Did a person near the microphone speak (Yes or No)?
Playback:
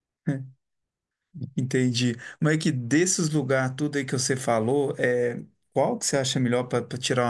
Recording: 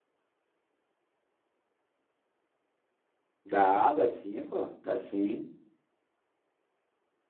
Yes